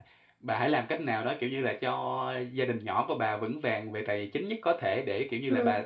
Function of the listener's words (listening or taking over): listening